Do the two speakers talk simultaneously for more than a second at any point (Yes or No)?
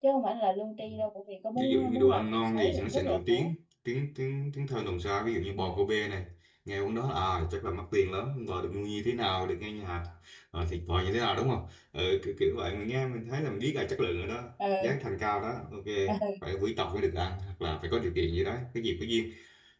Yes